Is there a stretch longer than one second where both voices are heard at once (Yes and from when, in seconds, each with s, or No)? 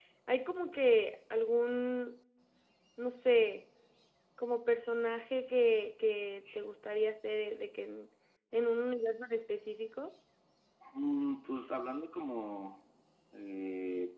No